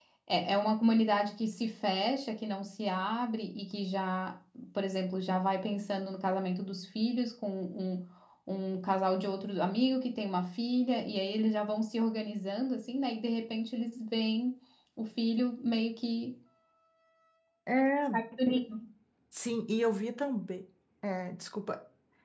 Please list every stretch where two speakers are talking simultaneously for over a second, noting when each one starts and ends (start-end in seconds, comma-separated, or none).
none